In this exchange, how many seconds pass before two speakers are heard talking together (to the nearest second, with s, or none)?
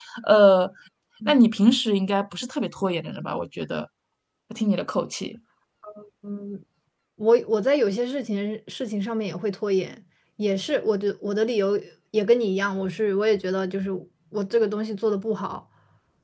none